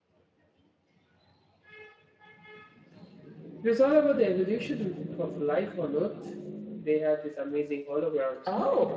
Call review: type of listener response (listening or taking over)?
taking over